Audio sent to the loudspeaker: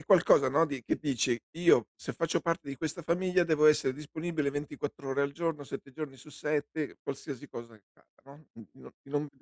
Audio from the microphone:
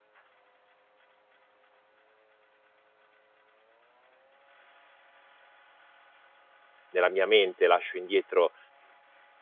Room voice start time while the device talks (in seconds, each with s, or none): 6.9 s